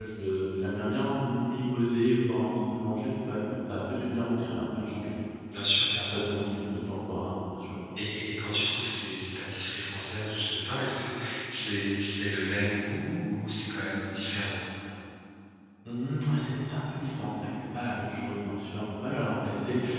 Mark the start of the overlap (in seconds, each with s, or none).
none